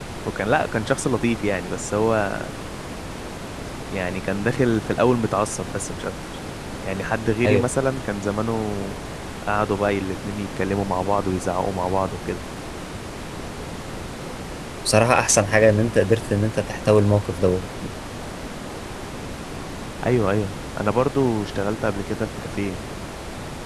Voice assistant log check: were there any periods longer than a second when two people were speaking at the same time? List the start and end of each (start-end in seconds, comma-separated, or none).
none